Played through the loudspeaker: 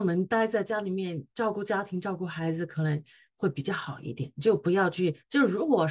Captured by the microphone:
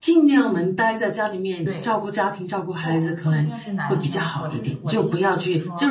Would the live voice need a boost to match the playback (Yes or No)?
Yes